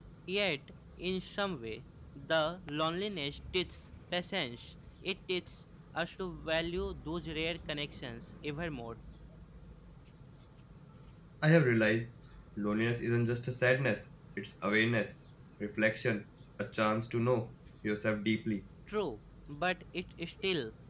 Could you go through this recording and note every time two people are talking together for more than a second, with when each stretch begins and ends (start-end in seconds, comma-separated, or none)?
none